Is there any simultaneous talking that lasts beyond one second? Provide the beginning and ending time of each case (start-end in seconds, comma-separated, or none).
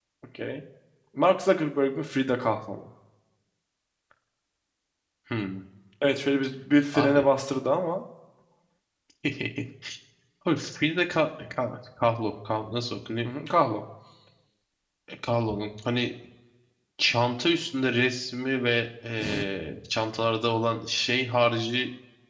none